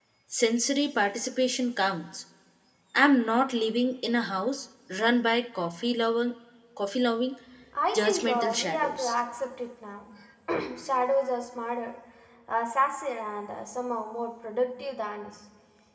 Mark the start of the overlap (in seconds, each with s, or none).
7.9 s